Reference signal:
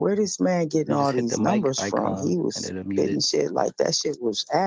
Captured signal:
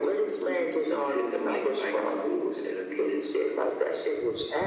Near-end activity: none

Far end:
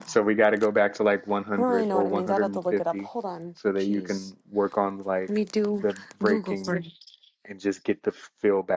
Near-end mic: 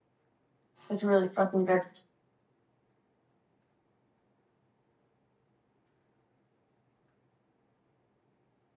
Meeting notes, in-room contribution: present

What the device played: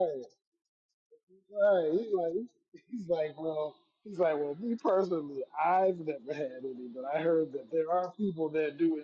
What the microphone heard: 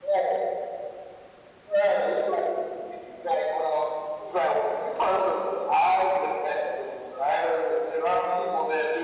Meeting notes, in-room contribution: none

